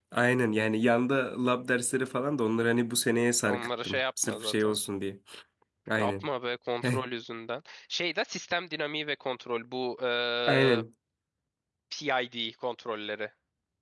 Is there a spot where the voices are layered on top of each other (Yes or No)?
Yes